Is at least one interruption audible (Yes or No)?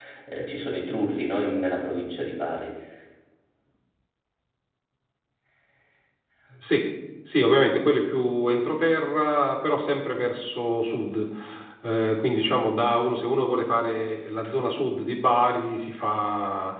No